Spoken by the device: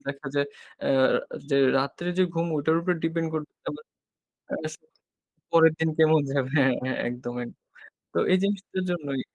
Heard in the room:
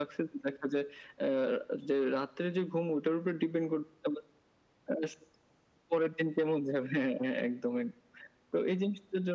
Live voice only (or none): none